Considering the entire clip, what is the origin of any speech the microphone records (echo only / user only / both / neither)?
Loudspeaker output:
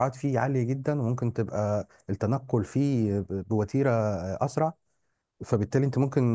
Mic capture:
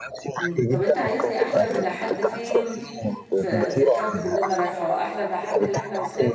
both